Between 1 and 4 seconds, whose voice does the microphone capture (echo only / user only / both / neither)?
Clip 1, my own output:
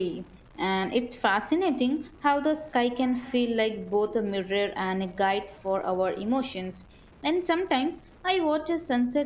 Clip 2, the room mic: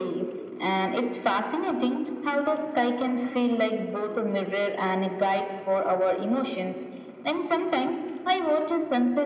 echo only